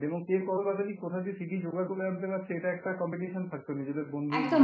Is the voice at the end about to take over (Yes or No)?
Yes